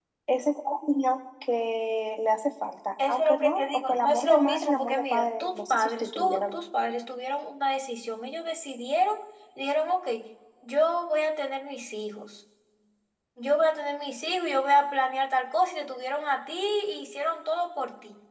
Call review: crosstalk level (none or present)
present